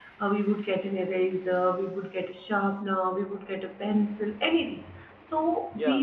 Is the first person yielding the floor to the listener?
No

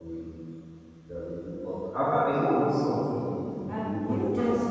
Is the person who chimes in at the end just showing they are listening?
No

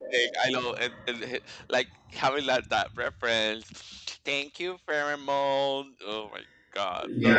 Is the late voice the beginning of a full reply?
Yes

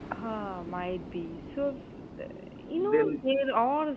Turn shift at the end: No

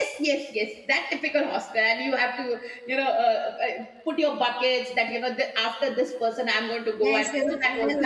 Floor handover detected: Yes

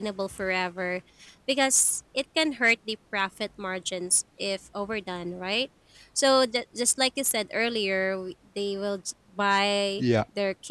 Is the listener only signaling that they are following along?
Yes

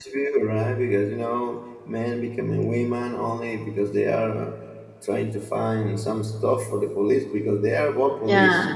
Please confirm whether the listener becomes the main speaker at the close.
No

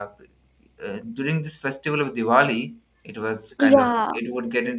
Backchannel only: Yes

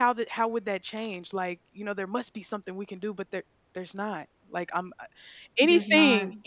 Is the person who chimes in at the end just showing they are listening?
Yes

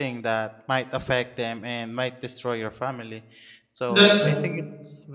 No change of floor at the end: Yes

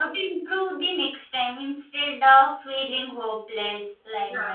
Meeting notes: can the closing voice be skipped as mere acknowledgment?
Yes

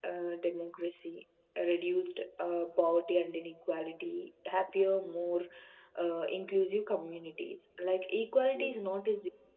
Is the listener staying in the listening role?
Yes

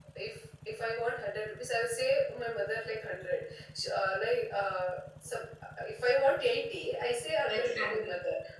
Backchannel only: Yes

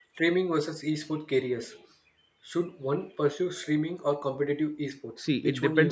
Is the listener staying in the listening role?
No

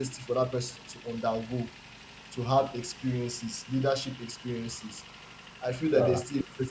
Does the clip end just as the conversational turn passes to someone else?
No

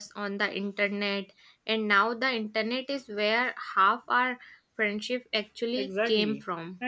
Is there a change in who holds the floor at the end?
Yes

